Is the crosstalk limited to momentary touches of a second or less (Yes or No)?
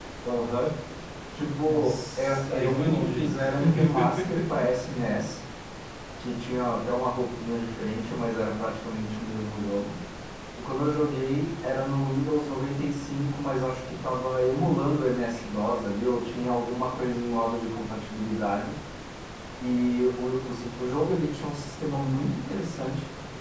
No